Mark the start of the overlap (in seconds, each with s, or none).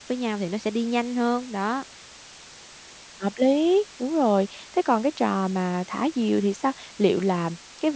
none